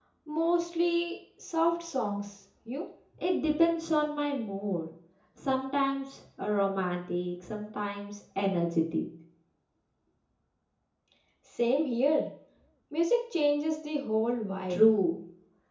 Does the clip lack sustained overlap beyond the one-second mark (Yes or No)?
Yes